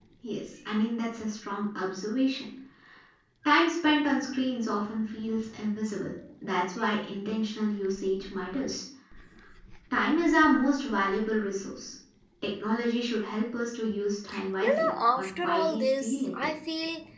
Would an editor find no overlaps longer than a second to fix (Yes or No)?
No